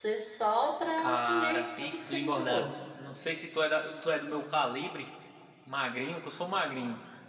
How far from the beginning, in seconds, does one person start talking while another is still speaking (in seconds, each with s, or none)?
1.0 s